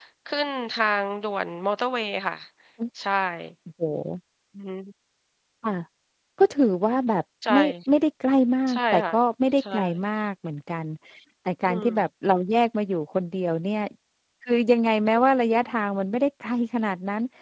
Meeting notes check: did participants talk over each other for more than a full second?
No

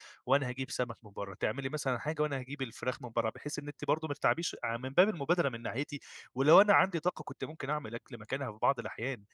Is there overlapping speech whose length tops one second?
No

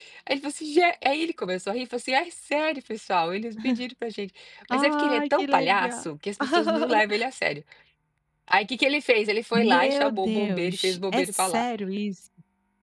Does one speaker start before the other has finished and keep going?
Yes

